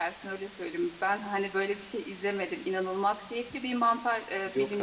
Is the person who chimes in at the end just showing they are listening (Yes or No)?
Yes